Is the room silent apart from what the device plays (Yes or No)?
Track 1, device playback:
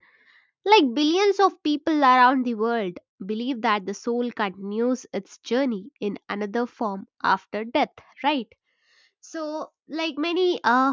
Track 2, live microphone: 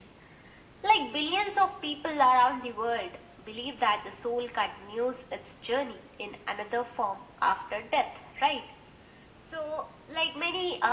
Yes